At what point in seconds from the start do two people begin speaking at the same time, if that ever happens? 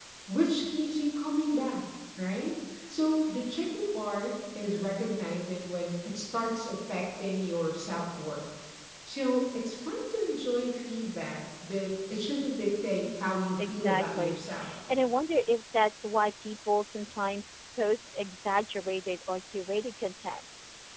13.0 s

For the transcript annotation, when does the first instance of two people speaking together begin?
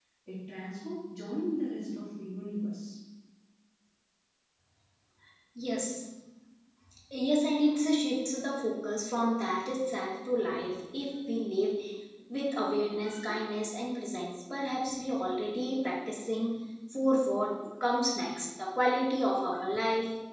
none

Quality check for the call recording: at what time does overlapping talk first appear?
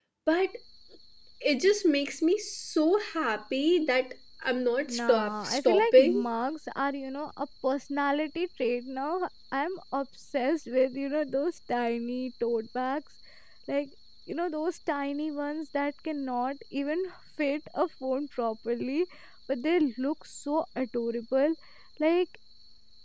4.9 s

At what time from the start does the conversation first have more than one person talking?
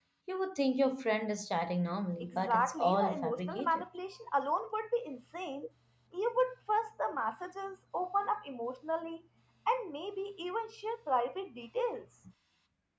2.2 s

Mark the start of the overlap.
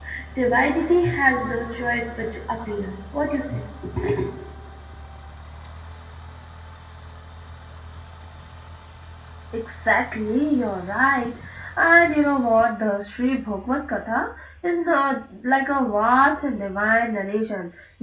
none

